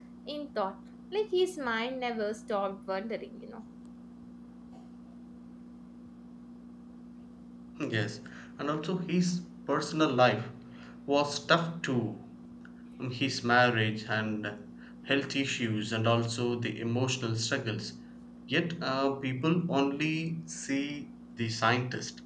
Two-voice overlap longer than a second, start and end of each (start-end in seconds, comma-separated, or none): none